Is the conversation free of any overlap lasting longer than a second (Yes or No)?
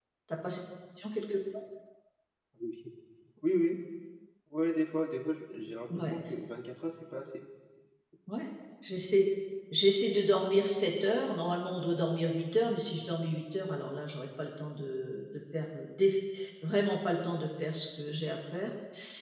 Yes